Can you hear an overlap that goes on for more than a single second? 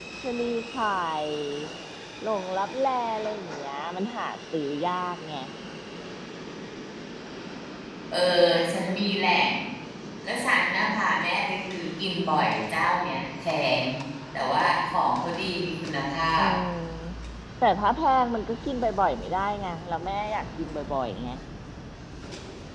No

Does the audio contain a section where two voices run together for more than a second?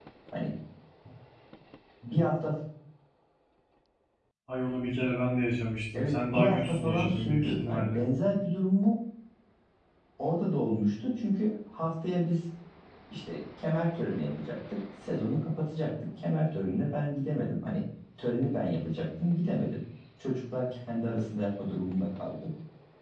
Yes, from 5.9 s

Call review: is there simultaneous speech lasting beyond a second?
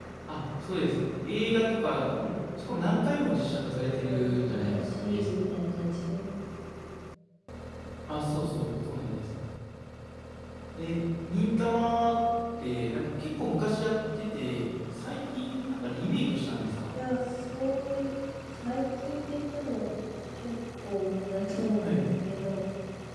Yes, from 3.7 s

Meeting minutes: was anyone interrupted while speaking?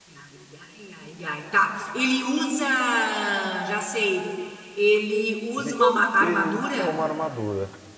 Yes, from 5.6 s

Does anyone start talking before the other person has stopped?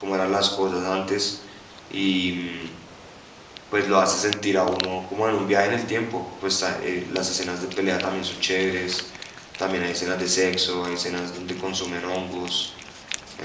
No

